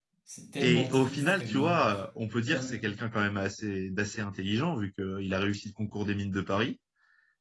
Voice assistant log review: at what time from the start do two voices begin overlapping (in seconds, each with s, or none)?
0.6 s